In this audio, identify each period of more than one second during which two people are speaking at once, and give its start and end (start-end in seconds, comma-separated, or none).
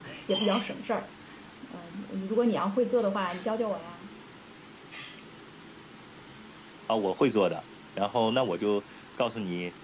none